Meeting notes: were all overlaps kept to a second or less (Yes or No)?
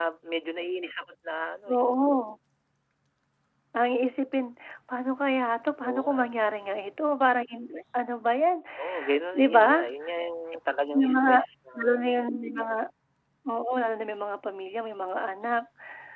Yes